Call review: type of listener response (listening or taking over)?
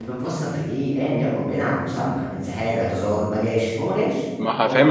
taking over